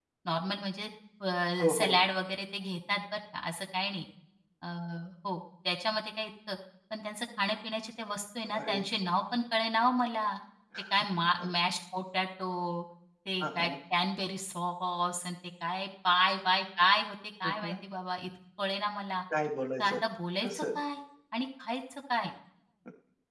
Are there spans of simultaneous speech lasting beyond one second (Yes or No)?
No